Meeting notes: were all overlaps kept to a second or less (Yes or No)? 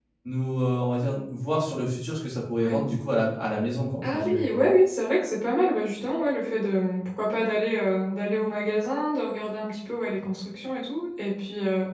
Yes